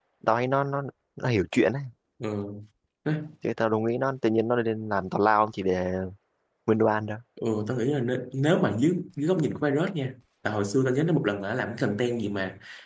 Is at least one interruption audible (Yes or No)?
No